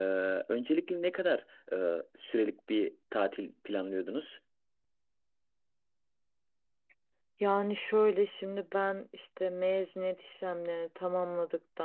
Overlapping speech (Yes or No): No